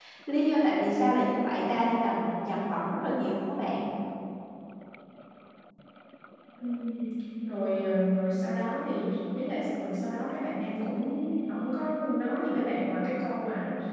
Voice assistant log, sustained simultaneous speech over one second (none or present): none